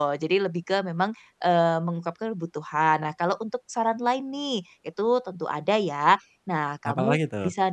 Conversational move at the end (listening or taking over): listening